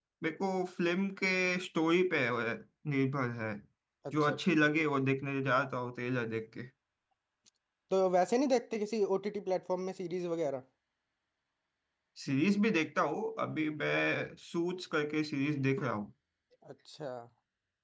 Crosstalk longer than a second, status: none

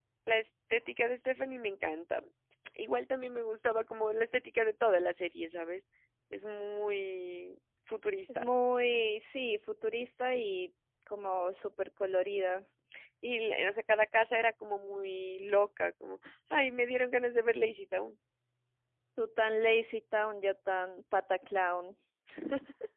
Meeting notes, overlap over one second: none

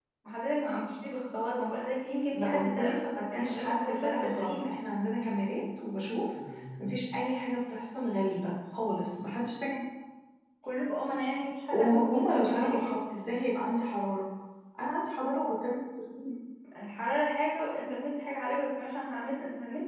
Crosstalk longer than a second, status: present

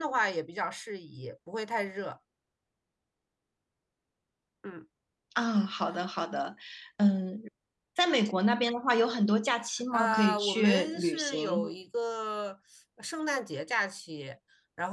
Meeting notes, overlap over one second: present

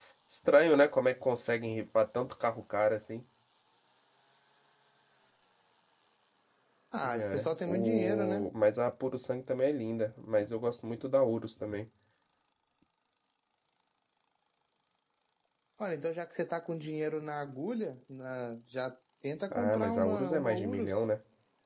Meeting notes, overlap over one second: present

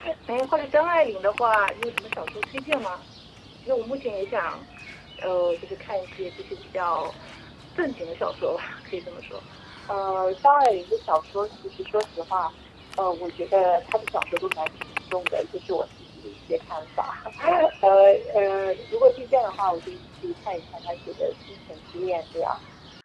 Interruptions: none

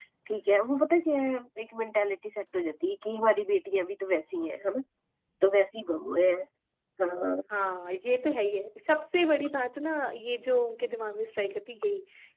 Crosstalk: none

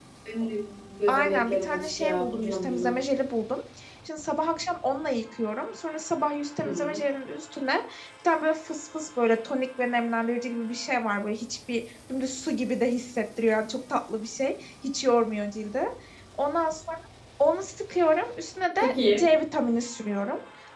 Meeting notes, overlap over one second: present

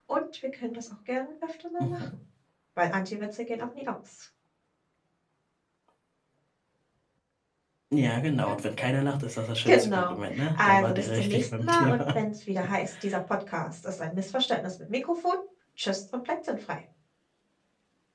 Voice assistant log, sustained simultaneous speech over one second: present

